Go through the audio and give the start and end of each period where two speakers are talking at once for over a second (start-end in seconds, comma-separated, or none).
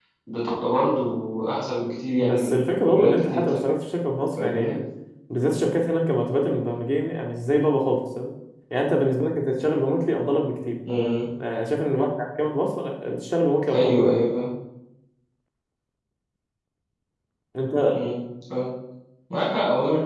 2.2-3.6